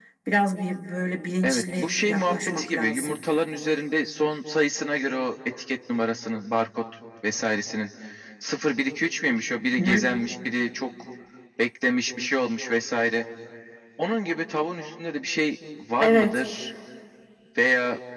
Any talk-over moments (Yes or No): Yes